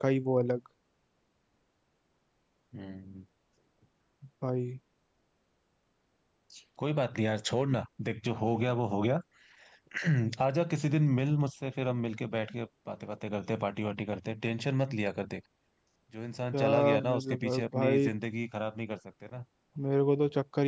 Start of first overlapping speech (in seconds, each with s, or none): 16.5 s